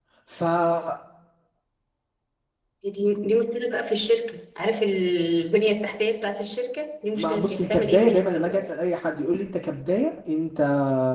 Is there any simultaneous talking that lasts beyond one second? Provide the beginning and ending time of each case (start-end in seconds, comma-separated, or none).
7.2-8.6